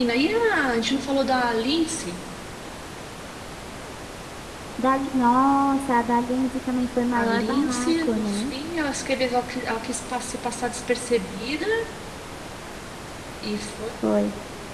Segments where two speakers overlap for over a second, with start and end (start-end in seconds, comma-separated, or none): 7.1-8.5